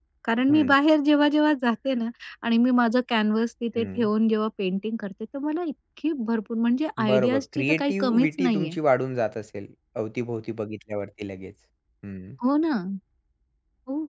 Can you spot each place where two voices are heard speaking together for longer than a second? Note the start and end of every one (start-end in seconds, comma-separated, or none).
7.1-8.7